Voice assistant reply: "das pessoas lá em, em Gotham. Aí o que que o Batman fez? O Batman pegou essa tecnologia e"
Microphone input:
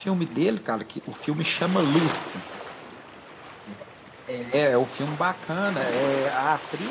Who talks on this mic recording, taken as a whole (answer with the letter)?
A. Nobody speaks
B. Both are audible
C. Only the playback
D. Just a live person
D